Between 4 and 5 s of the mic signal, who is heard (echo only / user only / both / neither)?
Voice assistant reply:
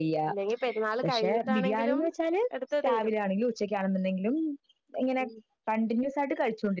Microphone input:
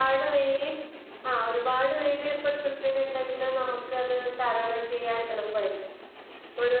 user only